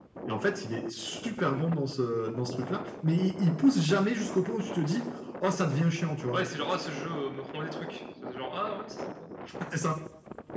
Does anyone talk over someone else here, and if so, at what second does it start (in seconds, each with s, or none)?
none